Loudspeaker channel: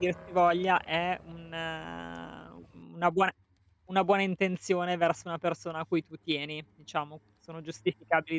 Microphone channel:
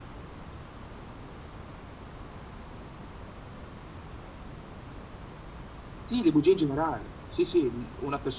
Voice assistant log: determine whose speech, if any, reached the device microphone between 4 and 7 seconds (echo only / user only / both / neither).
user only